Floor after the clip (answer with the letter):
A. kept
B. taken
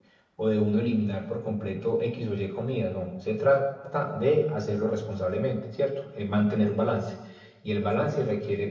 A